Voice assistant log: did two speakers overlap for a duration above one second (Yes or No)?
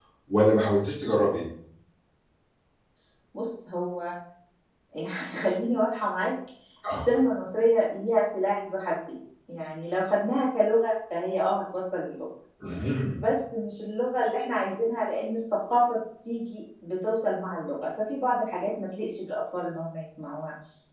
No